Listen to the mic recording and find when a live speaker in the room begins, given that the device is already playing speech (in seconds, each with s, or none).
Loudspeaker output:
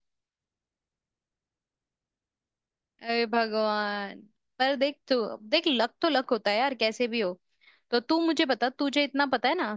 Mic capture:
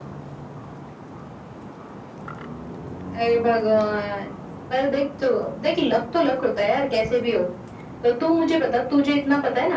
none